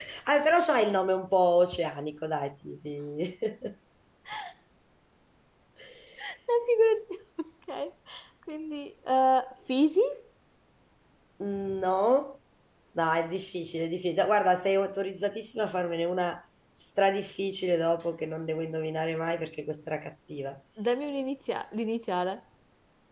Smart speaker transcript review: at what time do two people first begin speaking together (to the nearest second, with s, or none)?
none